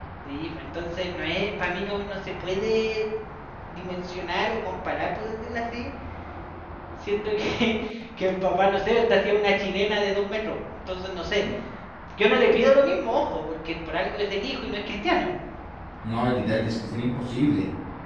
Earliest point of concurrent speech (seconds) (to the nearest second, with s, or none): none